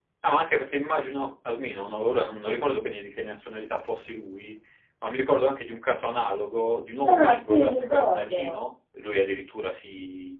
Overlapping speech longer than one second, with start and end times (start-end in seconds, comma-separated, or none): 7.1-8.5